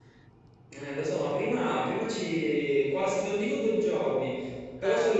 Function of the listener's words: listening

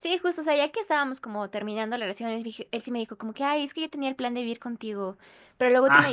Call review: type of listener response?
listening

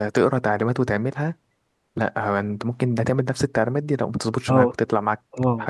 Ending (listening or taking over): taking over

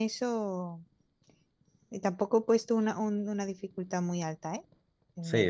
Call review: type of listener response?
taking over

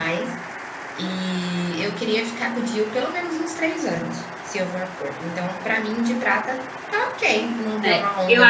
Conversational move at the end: taking over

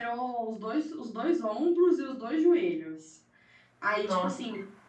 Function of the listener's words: listening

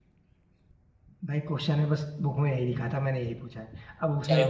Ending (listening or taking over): listening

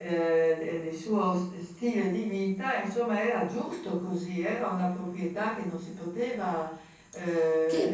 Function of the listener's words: taking over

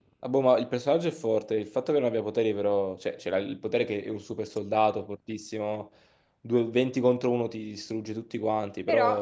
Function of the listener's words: taking over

